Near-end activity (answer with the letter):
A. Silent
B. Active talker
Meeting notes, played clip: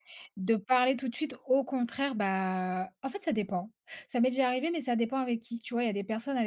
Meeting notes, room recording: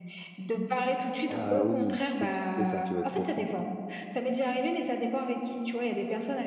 B